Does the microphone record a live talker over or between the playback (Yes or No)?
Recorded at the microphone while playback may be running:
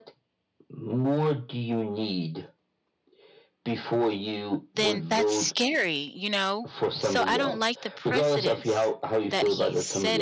Yes